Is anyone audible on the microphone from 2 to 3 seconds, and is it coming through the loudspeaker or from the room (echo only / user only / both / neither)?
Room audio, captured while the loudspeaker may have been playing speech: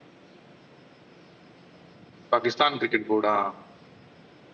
user only